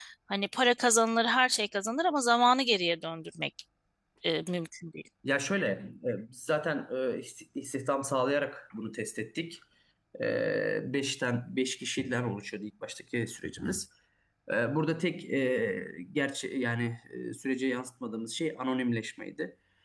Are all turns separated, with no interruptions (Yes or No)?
Yes